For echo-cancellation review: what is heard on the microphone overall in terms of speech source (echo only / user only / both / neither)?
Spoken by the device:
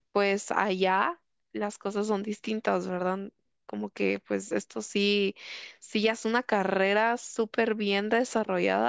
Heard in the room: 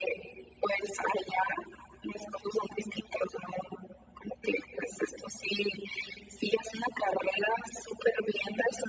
echo only